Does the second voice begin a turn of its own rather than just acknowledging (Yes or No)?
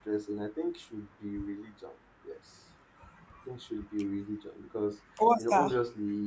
No